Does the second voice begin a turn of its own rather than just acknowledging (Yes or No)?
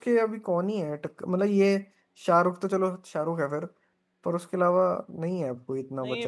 Yes